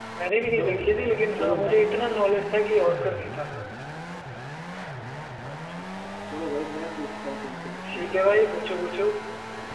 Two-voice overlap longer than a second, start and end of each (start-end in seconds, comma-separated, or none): none